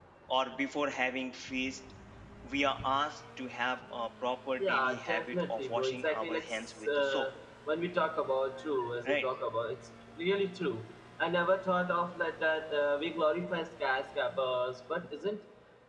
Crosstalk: present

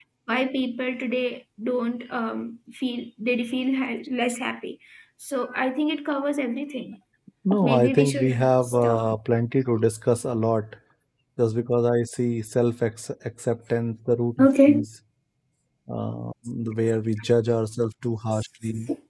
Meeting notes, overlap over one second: present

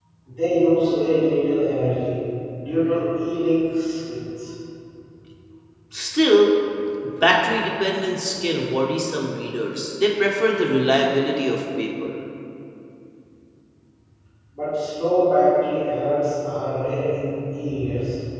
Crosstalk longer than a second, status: none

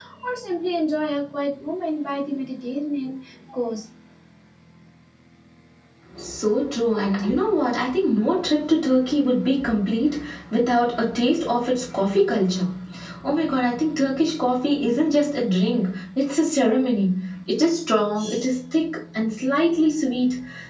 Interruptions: none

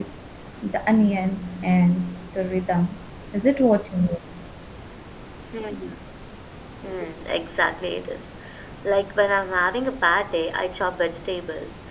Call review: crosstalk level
none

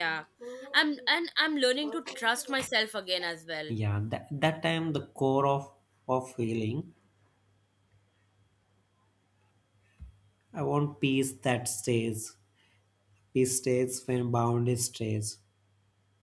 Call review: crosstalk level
none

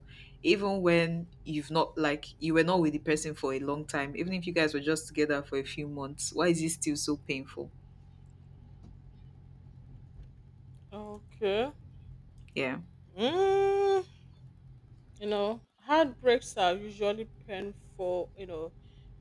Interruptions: none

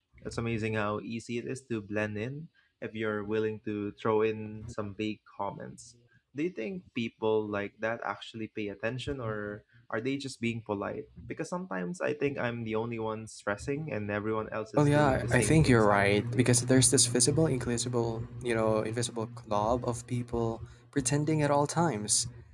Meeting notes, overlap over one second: present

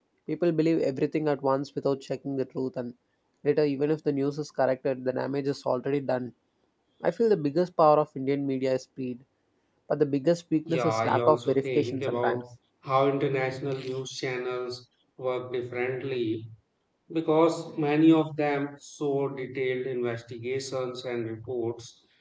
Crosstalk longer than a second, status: present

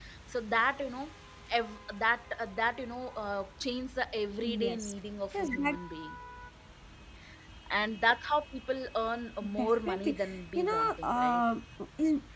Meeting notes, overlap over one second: present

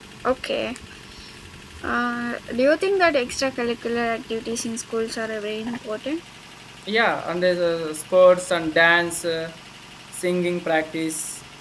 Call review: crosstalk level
none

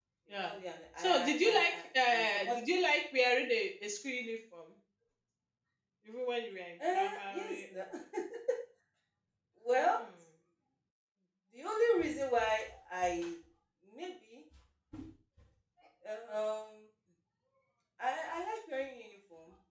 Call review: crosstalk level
present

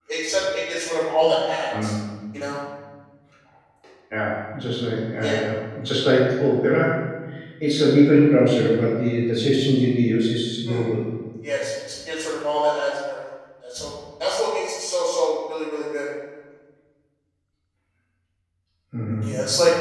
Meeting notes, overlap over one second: none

